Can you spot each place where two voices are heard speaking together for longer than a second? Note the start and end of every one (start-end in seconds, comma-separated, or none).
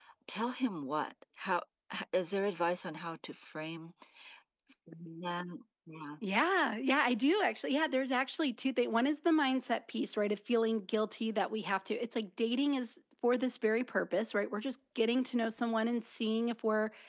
none